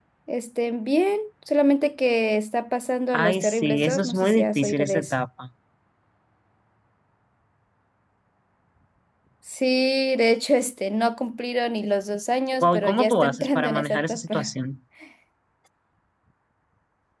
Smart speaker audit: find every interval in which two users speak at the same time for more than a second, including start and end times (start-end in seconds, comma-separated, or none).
3.1-5.1, 12.6-14.5